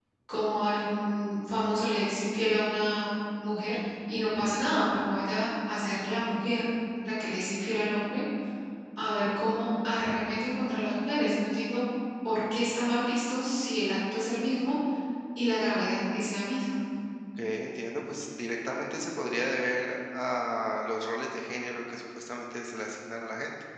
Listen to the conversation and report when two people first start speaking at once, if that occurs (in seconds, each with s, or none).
none